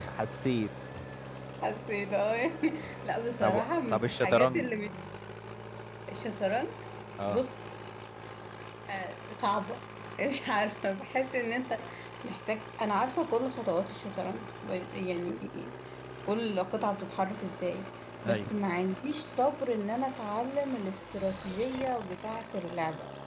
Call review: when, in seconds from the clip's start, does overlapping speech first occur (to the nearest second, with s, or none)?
3 s